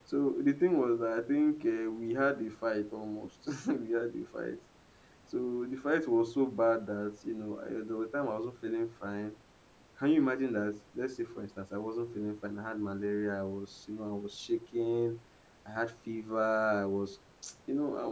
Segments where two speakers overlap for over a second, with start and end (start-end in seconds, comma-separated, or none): none